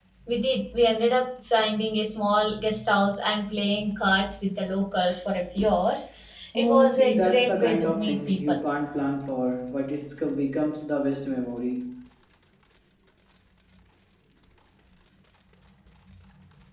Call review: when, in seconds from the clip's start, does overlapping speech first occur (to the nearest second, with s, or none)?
7 s